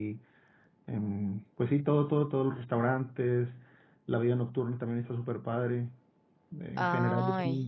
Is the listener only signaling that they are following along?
Yes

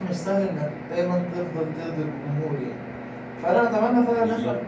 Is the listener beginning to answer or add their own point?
No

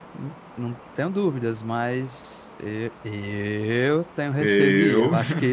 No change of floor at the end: Yes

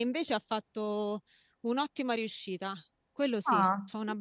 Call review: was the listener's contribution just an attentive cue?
No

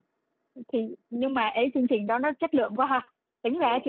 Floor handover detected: No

